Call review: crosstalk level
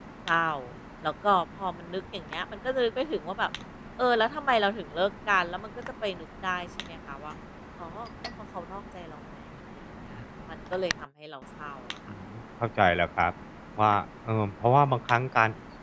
none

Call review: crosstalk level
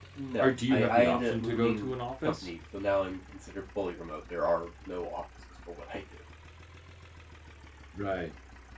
present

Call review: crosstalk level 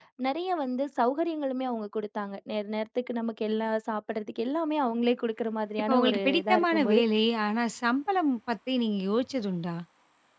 present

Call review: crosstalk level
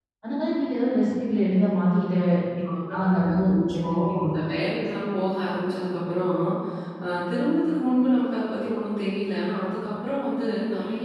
present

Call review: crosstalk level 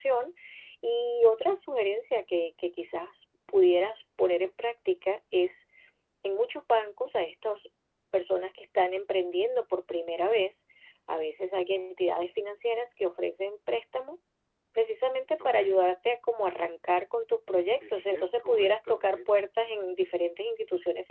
present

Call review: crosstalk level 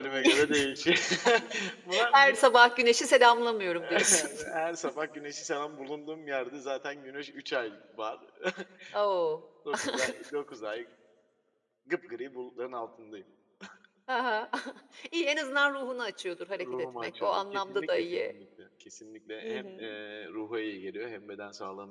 present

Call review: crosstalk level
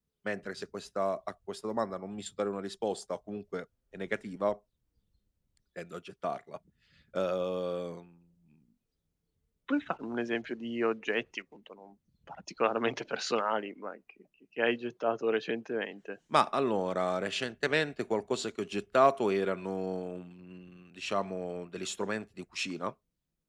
none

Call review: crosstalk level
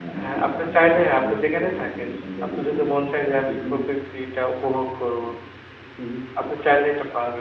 present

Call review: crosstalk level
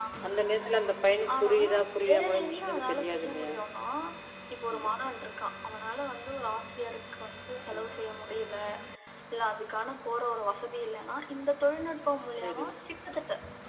present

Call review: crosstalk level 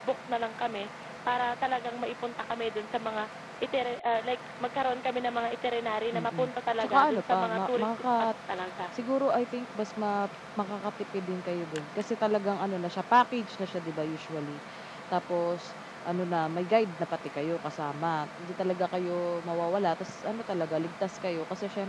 present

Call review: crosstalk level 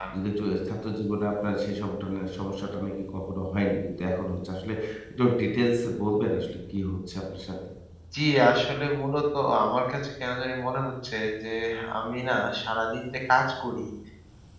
none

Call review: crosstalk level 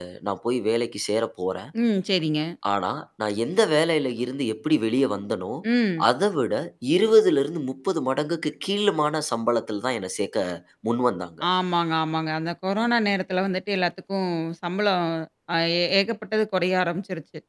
none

